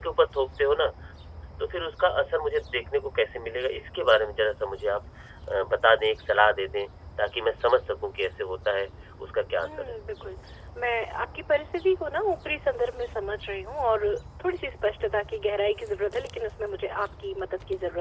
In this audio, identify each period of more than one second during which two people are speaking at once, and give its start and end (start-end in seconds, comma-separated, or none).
none